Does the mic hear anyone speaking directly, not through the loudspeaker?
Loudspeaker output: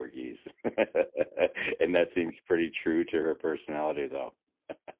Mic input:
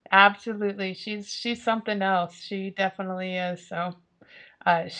Yes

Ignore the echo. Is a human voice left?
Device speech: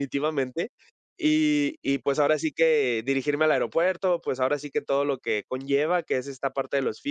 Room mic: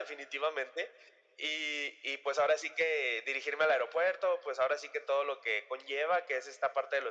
No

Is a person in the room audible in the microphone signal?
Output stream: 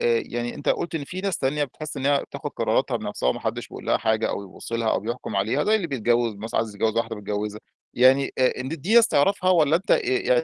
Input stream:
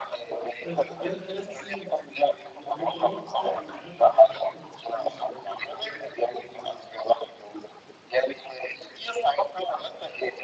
Yes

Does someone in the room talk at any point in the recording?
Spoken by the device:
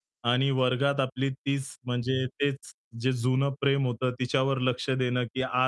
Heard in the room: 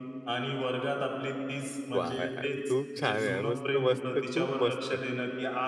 Yes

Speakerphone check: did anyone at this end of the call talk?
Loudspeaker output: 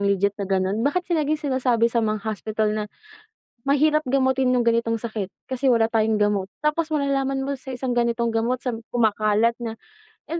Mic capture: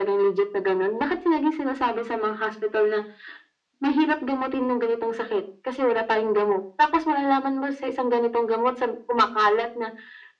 No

